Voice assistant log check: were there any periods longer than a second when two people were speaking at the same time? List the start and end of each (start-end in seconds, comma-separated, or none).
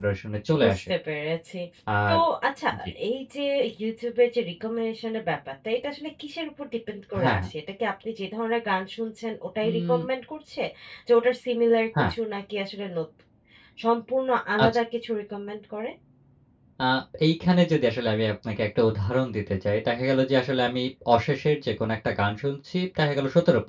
none